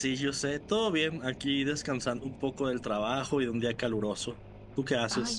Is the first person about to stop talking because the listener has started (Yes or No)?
Yes